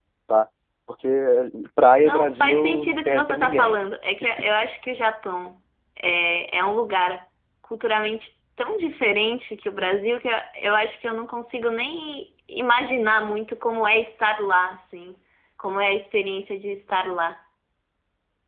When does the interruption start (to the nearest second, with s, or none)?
2 s